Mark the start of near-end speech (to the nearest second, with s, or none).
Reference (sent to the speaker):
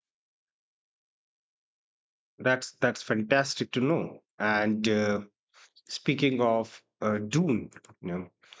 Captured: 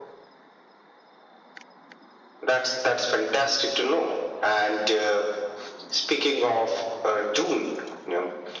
none